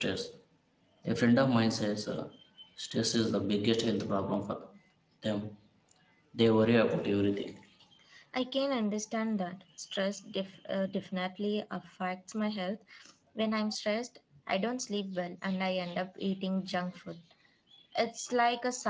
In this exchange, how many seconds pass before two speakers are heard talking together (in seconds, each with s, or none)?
none